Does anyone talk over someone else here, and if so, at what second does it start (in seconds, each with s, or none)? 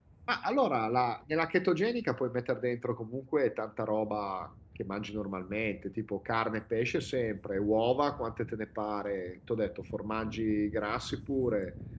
none